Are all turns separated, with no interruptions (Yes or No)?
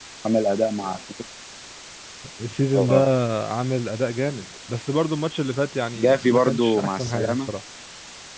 No